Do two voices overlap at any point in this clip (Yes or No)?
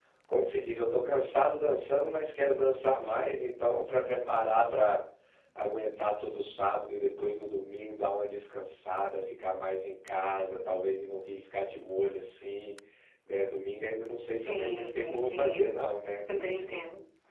Yes